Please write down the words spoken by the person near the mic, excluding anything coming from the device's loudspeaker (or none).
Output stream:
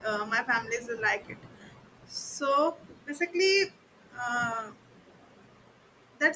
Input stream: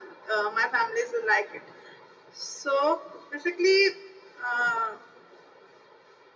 none